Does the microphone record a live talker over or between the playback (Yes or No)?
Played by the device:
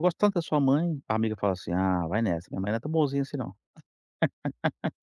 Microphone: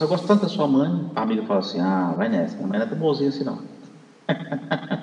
No